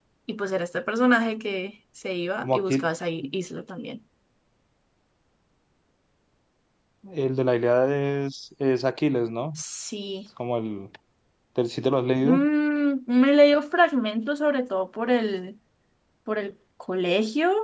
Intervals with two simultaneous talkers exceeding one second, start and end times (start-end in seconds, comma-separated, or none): none